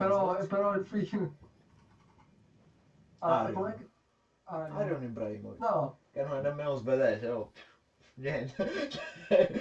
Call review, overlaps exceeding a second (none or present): none